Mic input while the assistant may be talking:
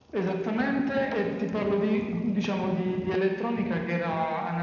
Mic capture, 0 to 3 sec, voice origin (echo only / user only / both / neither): echo only